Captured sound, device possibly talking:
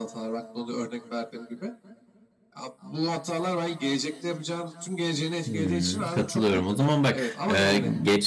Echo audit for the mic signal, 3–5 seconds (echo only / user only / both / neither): echo only